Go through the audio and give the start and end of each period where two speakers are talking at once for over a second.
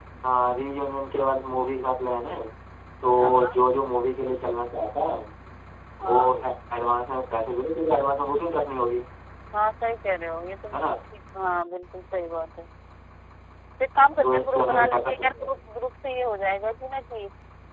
14.2-15.5

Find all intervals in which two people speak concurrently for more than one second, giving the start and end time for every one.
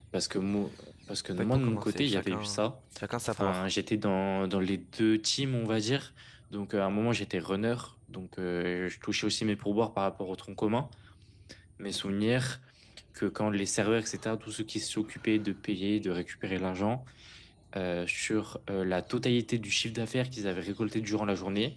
1.4-2.7

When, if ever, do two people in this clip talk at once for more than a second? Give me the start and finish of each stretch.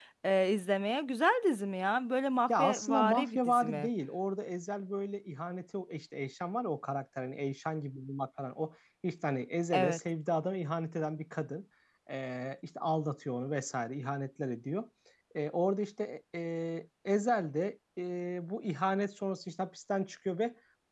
2.5-3.9

